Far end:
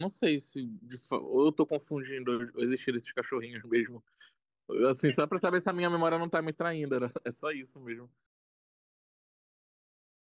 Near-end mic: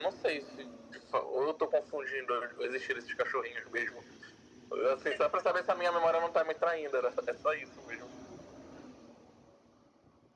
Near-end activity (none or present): none